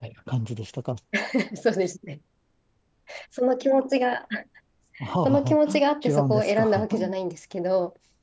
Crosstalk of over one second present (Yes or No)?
Yes